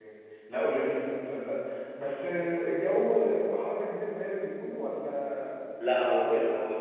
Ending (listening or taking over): taking over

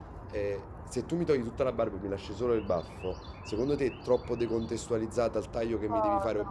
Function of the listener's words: taking over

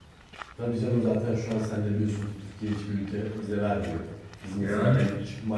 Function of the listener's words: listening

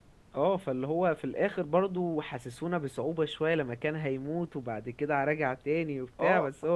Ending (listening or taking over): taking over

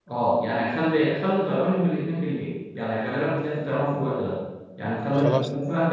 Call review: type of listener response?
listening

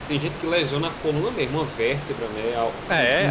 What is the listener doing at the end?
taking over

